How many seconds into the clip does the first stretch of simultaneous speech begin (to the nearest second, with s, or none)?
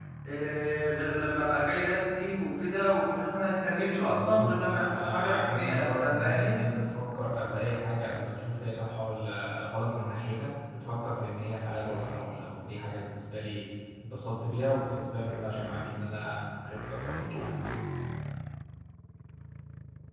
4 s